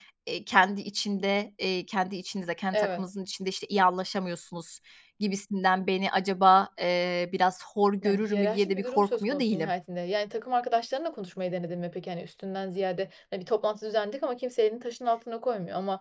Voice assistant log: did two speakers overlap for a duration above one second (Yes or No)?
Yes